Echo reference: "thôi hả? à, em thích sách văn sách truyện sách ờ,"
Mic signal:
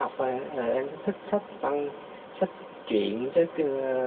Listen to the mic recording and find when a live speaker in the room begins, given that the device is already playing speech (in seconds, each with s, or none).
none